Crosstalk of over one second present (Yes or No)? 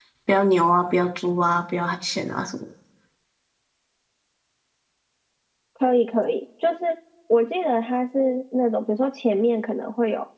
No